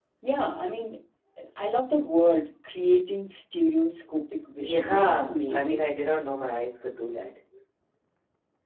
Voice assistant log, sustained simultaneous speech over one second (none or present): present